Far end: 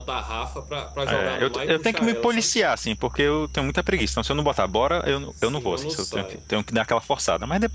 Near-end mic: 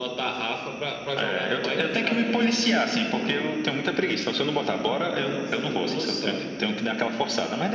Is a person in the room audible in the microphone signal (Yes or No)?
No